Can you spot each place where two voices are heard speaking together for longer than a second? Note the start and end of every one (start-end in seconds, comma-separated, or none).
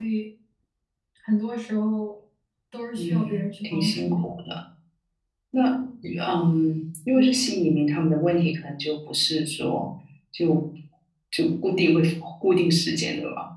3.0-4.3